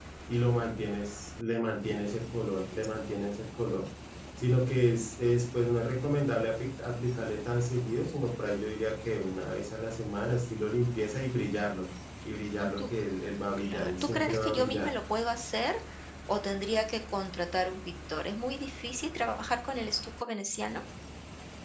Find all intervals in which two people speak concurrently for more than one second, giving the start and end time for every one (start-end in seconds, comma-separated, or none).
13.6-14.9